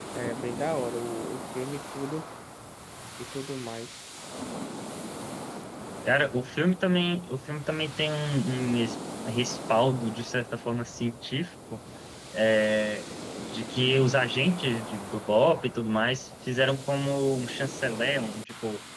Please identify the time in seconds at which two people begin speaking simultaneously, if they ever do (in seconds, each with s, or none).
none